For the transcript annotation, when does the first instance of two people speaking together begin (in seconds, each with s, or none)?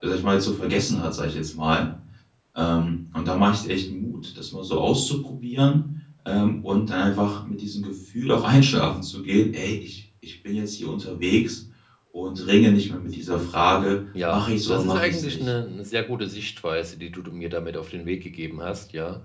14.2 s